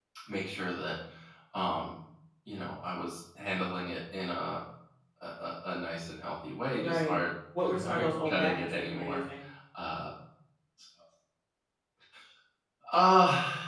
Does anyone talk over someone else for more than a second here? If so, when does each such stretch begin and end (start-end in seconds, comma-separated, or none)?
7.8-9.2